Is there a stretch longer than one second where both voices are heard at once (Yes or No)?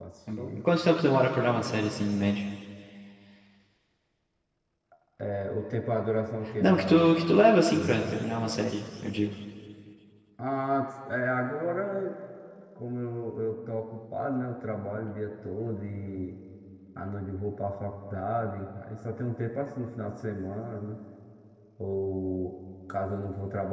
No